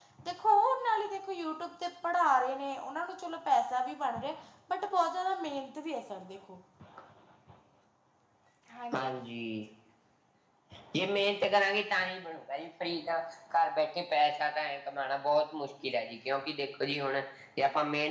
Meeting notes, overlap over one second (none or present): none